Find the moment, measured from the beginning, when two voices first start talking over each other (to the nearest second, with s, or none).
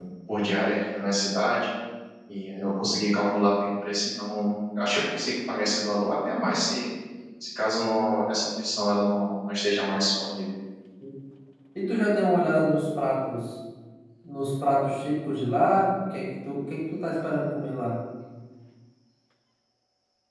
none